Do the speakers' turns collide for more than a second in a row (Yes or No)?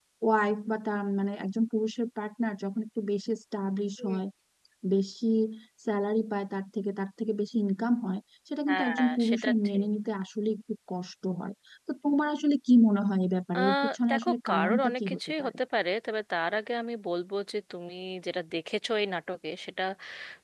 Yes